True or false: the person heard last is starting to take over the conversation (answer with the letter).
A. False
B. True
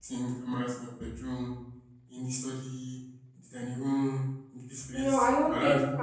B